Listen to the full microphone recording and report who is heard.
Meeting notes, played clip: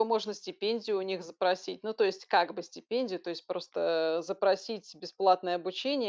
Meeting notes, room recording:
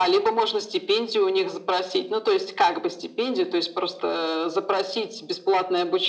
echo only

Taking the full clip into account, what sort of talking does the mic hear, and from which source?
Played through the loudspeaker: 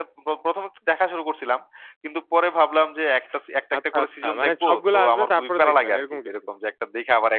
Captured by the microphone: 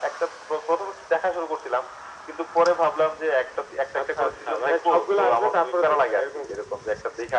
echo only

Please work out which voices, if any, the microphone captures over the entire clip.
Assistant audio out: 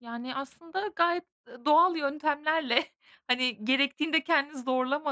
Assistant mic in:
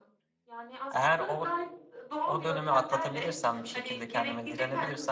both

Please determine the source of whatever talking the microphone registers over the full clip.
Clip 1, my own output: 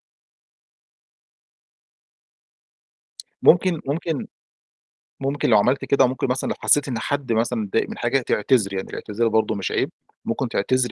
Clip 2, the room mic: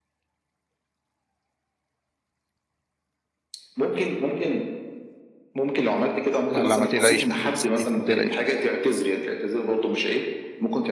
both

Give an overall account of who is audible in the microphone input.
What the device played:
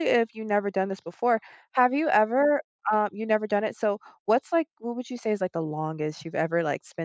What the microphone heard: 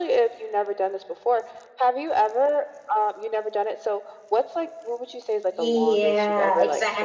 both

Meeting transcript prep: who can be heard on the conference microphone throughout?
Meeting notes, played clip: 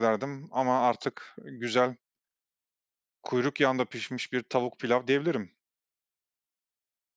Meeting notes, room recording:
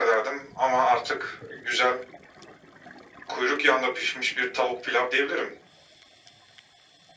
echo only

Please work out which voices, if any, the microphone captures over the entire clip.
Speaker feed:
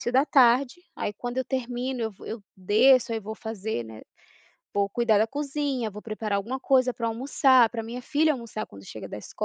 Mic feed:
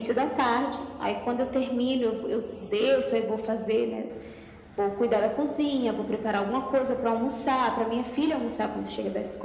echo only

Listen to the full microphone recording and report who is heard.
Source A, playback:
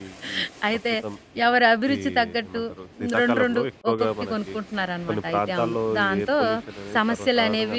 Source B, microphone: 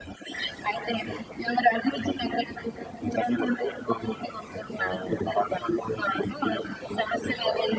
both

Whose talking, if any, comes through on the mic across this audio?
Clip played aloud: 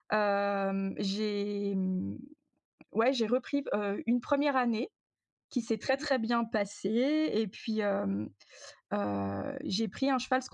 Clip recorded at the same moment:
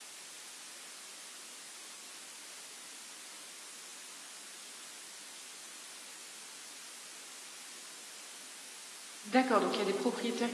user only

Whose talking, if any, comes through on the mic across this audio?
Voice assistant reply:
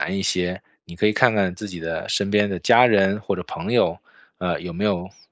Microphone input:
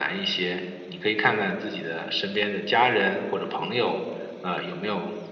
echo only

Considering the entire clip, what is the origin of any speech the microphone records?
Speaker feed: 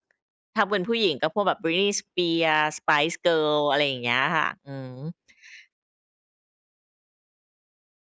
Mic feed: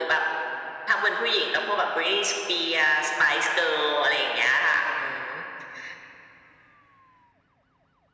echo only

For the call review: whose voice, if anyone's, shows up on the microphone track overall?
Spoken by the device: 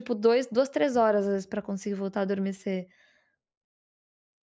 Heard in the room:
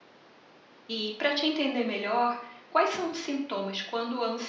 user only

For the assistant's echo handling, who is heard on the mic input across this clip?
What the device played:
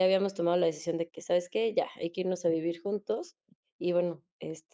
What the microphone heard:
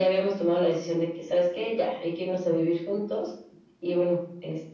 echo only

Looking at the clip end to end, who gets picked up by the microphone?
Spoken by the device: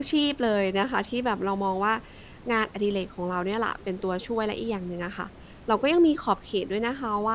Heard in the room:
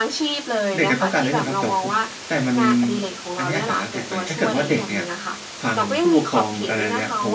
both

